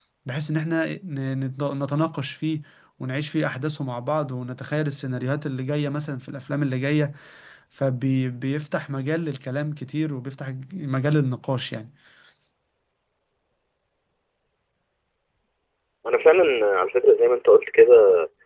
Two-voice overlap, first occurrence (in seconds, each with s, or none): none